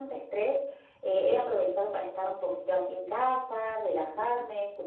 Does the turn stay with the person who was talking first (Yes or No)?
Yes